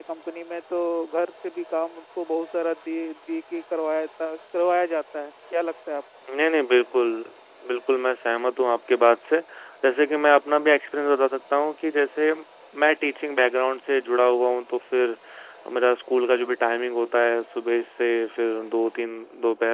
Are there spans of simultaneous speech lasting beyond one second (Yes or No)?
No